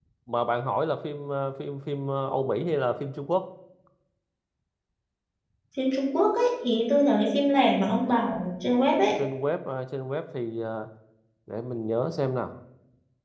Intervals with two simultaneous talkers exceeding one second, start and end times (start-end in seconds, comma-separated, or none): none